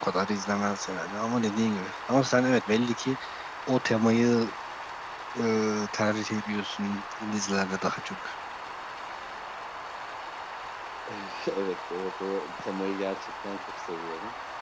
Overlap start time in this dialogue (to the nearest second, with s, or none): none